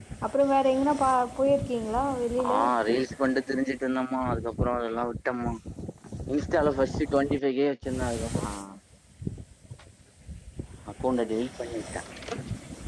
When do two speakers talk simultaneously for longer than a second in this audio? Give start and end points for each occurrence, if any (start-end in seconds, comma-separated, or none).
none